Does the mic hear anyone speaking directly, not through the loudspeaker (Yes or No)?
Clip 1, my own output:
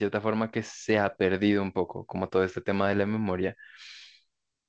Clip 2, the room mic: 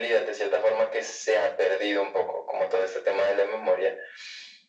No